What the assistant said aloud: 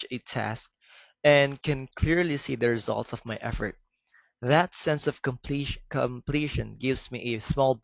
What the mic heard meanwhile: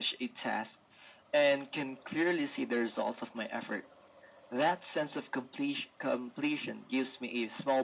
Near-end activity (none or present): none